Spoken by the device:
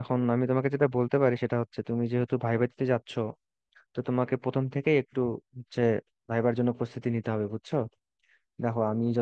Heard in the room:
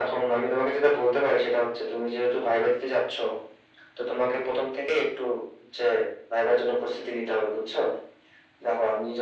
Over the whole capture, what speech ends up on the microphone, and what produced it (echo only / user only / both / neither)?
echo only